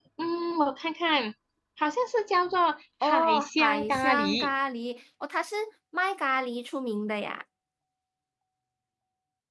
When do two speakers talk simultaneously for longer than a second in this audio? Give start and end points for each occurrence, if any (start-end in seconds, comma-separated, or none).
3.0-4.5